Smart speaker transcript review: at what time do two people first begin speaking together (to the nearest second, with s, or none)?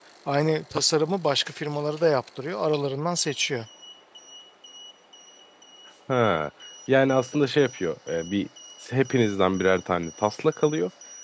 none